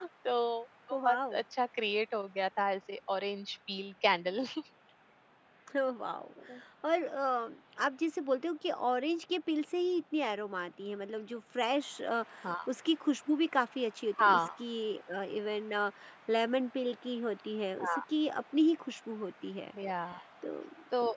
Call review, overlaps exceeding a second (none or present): none